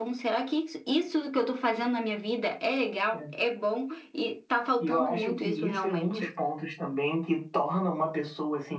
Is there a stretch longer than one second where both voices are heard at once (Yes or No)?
Yes